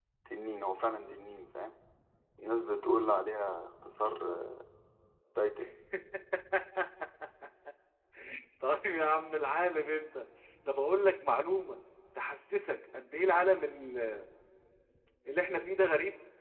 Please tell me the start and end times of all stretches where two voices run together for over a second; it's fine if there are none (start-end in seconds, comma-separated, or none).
none